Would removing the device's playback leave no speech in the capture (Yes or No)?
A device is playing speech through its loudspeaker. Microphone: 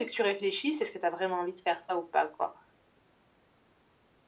Yes